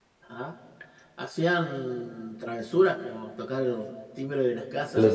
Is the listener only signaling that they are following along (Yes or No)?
No